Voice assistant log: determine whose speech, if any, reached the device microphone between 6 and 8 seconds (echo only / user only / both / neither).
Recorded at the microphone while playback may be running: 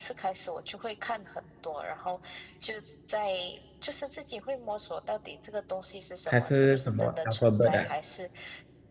both